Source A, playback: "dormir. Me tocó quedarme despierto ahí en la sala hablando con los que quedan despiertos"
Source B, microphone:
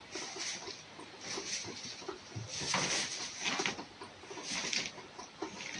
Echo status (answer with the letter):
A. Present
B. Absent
B